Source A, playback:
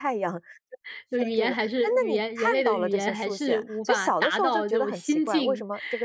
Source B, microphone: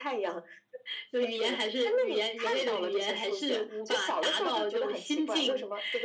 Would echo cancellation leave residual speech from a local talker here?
No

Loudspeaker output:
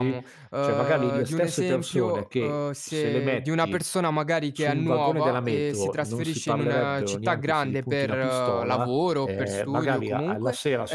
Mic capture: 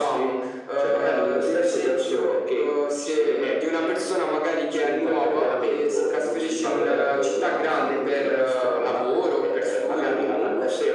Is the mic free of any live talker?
Yes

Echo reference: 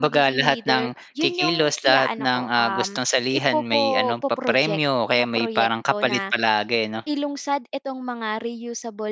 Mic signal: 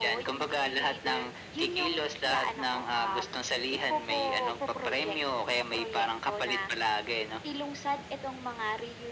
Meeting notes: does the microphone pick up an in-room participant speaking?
No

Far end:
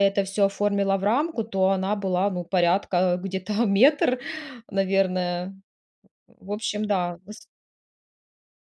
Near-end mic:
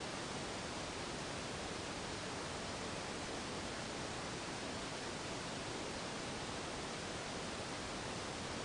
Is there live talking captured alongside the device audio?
No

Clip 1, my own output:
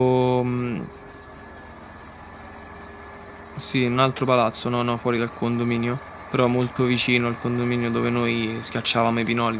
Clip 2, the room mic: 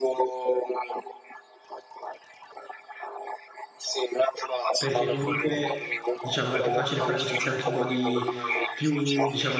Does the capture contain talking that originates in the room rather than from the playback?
Yes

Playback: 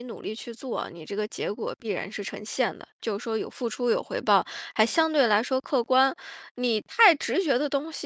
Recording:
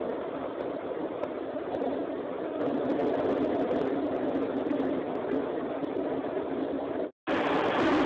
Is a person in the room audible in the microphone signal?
No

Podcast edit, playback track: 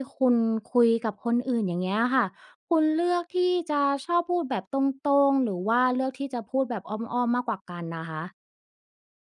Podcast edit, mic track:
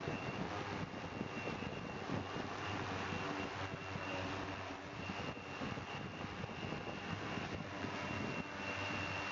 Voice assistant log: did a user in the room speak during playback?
No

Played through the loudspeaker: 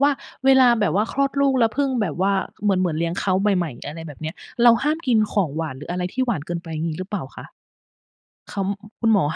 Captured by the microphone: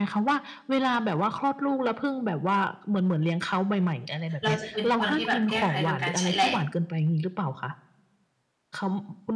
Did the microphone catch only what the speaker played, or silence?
No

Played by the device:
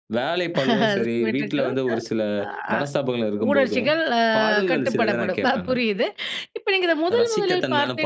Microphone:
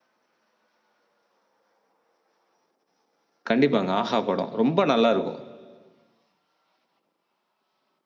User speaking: Yes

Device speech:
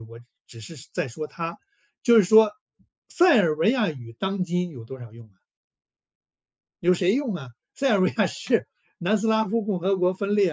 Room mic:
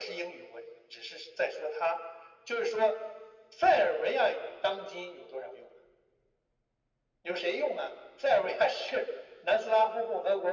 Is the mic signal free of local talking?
Yes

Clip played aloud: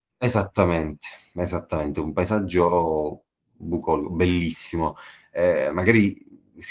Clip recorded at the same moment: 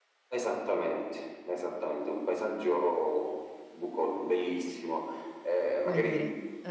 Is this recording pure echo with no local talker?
No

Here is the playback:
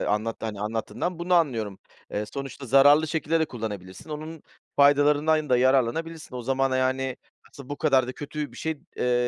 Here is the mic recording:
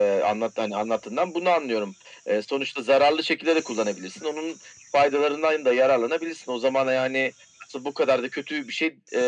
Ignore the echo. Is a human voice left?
No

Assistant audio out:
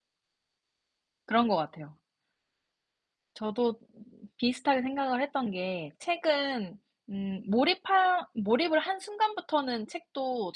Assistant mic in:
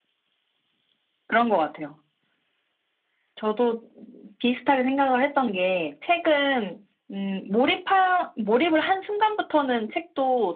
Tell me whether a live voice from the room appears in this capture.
No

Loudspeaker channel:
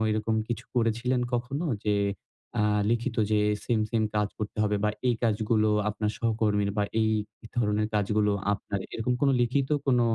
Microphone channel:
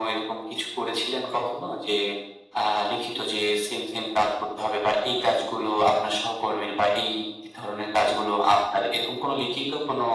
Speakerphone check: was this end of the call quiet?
Yes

